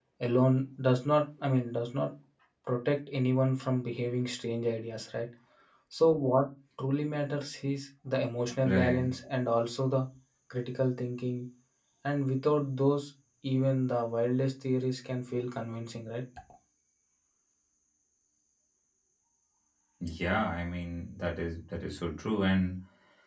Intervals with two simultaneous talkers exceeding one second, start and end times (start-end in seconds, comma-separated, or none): none